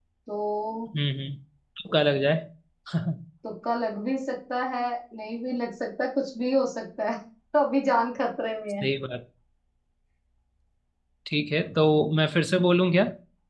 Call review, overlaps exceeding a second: none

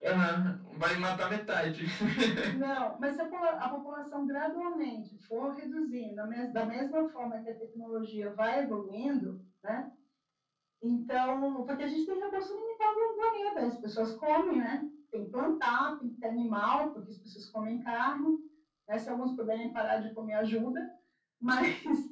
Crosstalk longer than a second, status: none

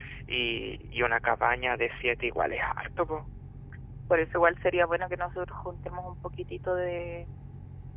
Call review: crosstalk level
none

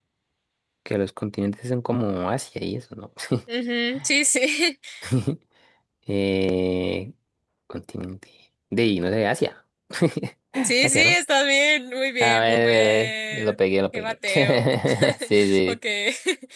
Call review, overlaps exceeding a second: present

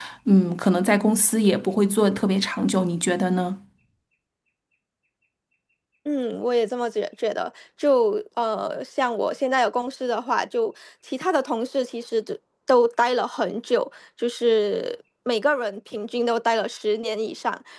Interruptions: none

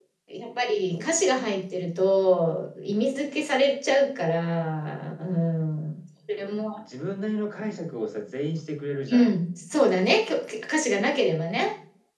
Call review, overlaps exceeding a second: none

